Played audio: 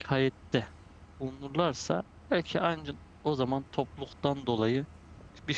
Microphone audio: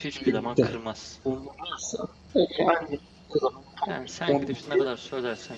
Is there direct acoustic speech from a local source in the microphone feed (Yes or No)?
Yes